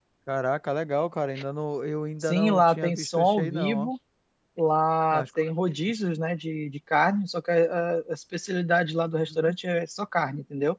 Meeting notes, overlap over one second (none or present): present